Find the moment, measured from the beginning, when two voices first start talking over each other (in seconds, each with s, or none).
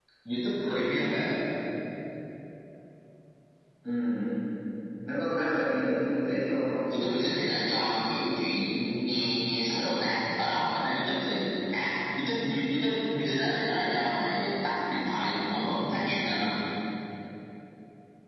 none